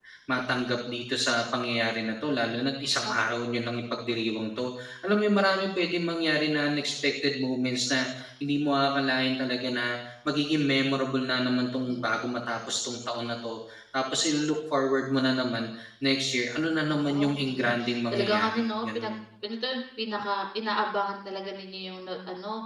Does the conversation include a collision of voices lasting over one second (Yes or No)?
Yes